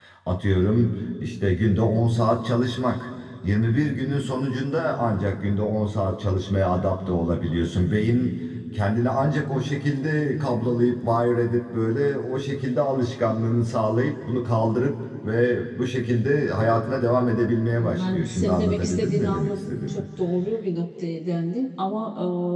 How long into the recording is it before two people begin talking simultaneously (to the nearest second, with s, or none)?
18 s